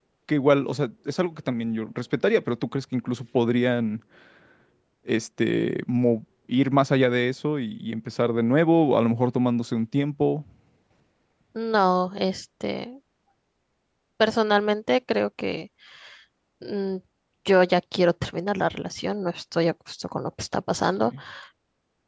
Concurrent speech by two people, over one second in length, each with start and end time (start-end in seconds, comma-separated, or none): none